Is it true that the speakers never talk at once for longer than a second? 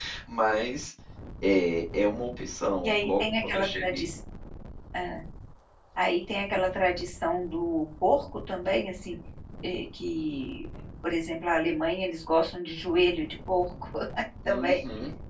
No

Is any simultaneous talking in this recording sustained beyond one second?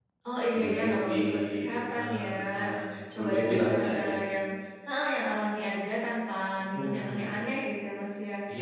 Yes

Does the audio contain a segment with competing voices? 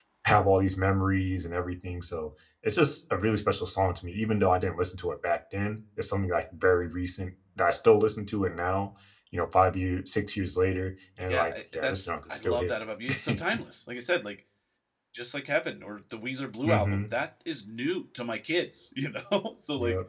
Yes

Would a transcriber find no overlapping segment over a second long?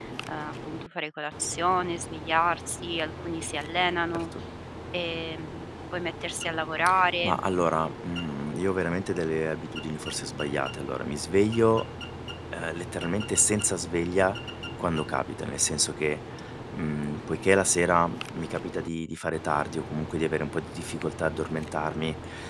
Yes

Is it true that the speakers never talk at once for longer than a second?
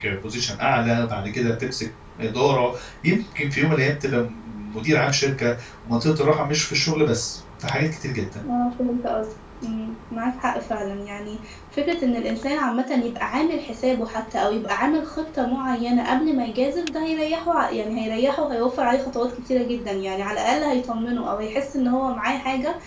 Yes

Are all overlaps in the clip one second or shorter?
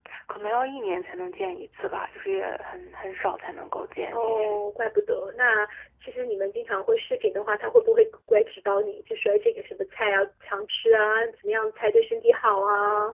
Yes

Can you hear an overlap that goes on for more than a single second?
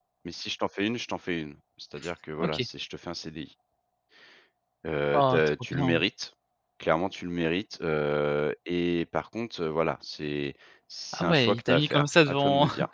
Yes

